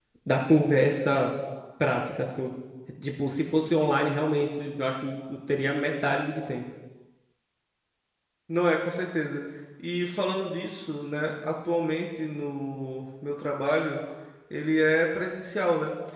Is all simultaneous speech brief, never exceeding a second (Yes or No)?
Yes